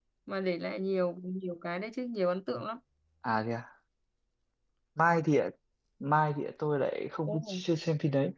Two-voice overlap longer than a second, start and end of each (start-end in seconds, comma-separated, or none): none